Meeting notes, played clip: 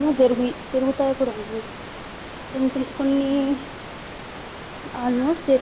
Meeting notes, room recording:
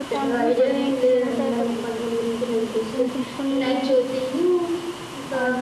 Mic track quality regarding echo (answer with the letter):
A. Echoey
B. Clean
A